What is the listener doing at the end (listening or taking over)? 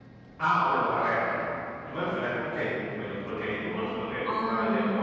listening